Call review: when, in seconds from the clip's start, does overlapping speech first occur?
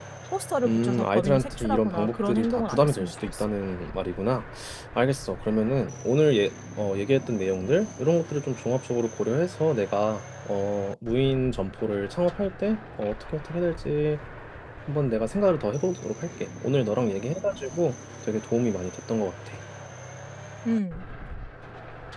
1 s

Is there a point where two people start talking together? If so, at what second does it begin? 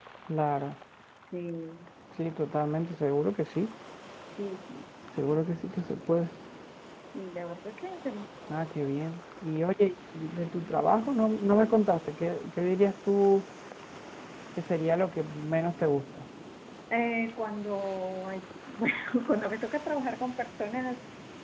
none

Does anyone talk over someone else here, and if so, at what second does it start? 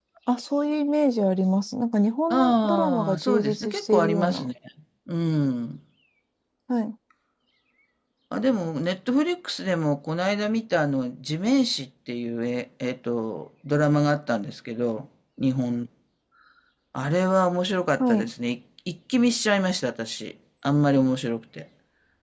2 s

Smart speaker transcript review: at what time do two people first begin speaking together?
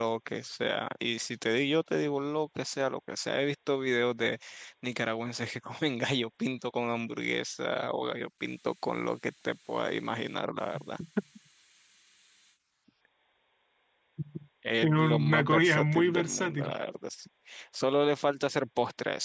15 s

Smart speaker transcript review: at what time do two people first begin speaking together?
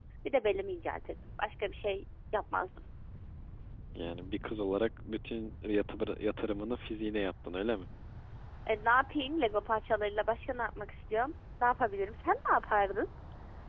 none

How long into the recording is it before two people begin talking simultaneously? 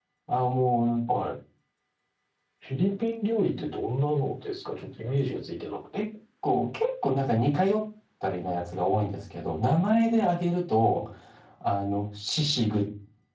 none

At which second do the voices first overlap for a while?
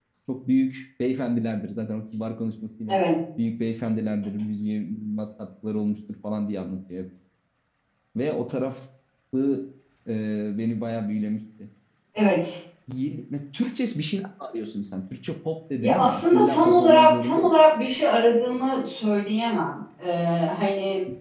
16 s

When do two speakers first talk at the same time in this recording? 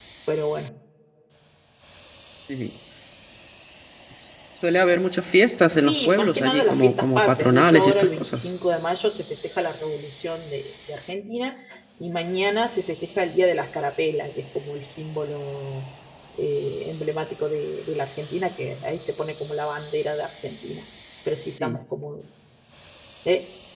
6 s

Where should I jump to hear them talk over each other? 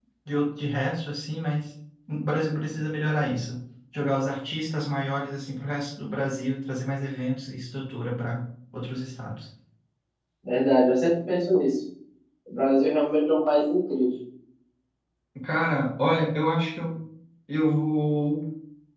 none

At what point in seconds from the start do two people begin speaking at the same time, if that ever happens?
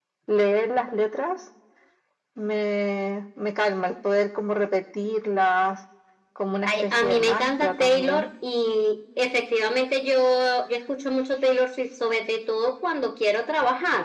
7 s

